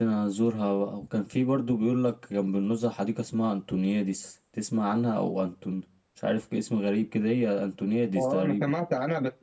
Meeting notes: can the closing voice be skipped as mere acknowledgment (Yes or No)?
No